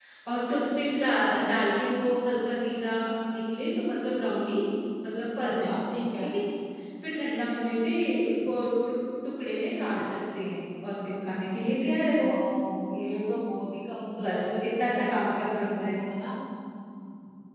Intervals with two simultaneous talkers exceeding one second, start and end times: 14.2-16.0

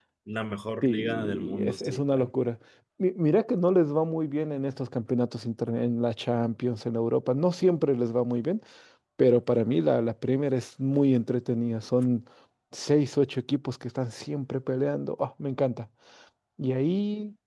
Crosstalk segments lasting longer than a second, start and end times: 0.8-2.3

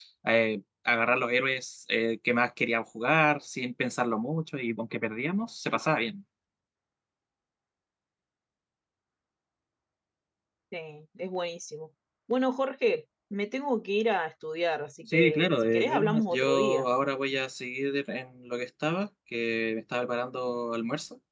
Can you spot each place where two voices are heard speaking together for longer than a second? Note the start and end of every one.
15.1-16.9

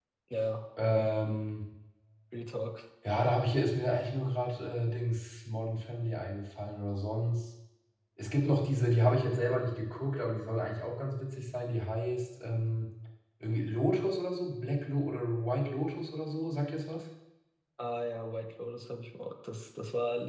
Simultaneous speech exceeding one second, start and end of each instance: none

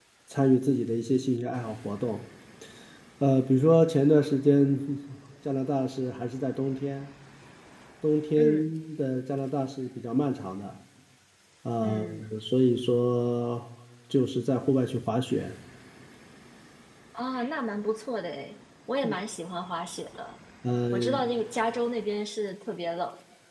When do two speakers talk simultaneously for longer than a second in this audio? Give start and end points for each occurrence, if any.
none

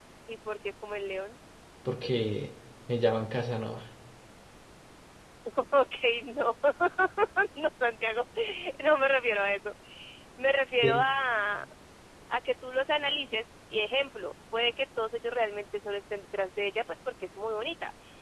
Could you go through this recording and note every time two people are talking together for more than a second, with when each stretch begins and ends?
none

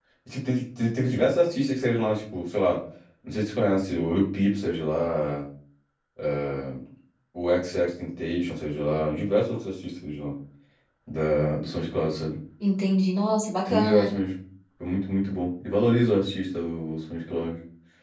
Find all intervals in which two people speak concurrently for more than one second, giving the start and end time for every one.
none

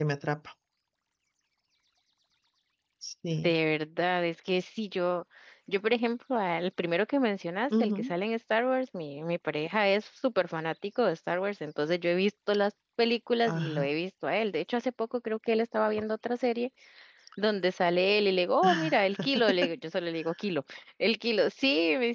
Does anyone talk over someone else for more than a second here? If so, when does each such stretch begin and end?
none

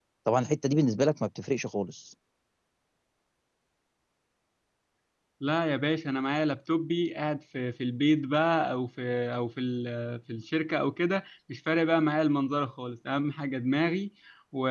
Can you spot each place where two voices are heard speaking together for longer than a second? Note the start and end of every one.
none

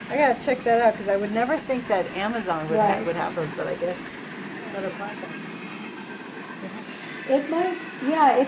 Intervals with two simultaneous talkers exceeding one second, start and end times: none

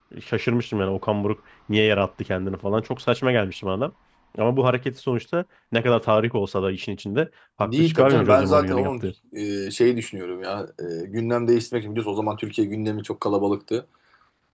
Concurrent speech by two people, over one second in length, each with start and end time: 7.6-9.0

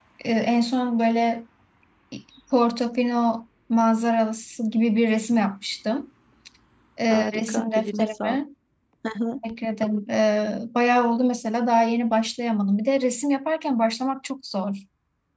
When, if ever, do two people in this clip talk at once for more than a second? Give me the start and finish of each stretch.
7.1-8.4

